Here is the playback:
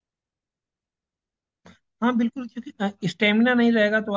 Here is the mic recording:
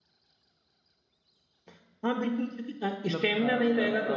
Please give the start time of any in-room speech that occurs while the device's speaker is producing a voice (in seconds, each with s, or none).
3.0 s